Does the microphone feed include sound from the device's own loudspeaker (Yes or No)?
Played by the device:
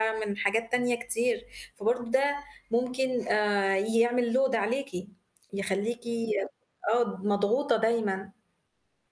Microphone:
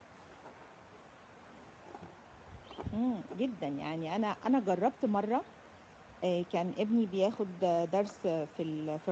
No